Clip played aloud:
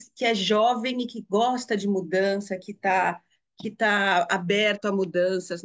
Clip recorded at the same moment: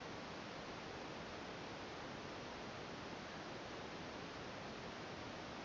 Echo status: none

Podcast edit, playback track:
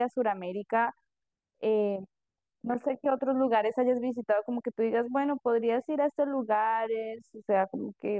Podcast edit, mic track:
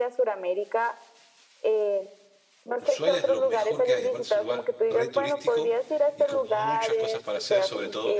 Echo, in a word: present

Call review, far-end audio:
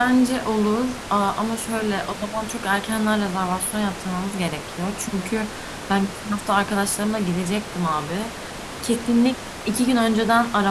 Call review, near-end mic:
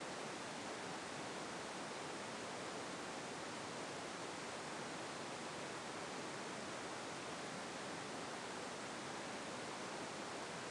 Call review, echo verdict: none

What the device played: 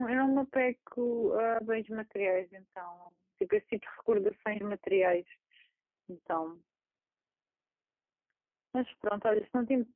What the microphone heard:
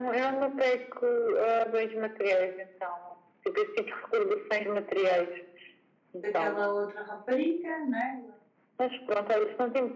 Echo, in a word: present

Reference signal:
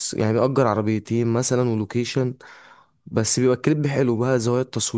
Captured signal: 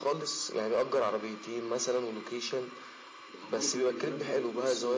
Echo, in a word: present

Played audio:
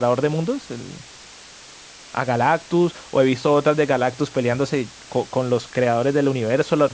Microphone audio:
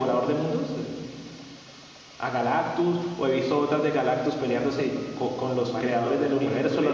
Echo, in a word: present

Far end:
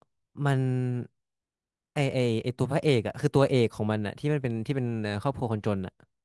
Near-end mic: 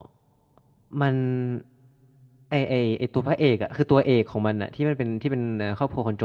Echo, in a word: present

